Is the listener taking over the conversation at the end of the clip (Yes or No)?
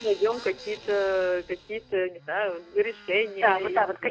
Yes